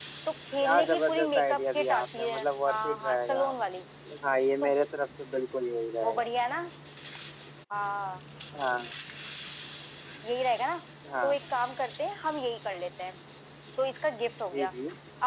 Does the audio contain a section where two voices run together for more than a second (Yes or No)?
Yes